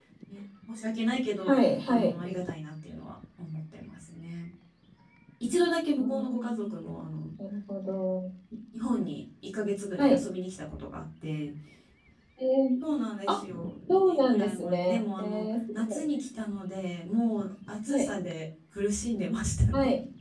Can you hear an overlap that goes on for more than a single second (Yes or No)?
Yes